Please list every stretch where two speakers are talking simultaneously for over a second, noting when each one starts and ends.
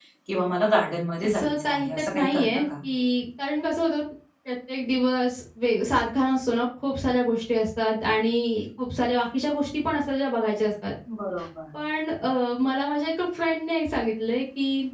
1.2-2.7

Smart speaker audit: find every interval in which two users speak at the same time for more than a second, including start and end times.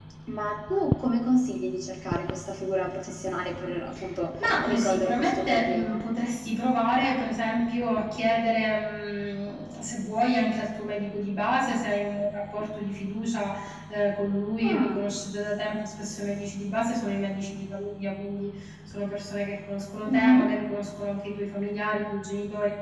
4.6-6.0

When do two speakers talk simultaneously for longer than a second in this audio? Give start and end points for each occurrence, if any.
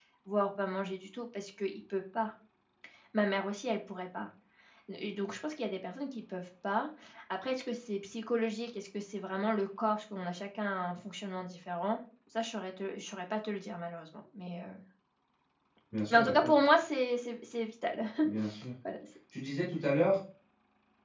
none

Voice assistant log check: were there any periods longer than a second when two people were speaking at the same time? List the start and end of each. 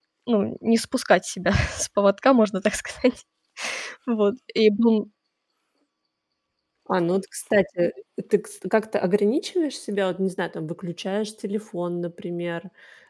none

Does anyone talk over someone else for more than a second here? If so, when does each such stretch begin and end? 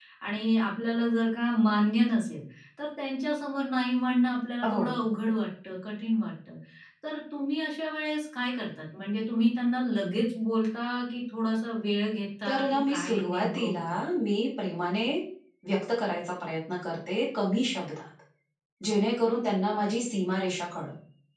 12.5-13.8

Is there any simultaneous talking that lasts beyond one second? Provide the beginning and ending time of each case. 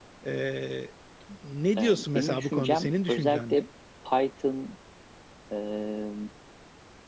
1.8-3.6

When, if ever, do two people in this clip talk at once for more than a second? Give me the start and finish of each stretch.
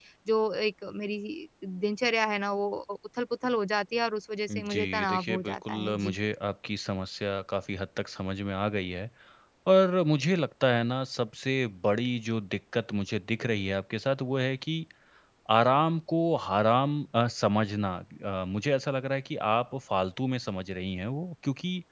4.5-6.2

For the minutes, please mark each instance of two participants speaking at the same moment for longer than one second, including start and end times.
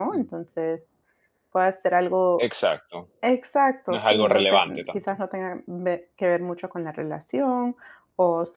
3.9-5.1

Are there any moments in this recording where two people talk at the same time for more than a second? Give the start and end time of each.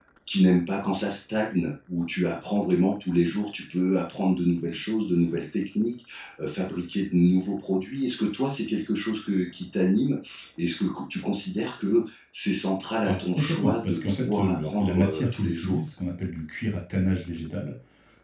13.0-15.8

